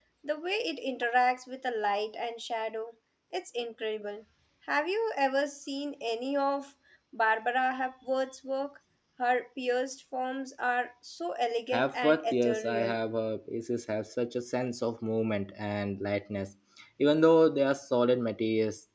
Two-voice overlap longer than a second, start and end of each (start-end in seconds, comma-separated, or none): 11.7-13.0